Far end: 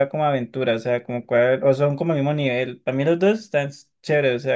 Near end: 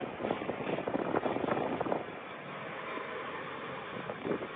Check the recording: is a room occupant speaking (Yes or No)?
No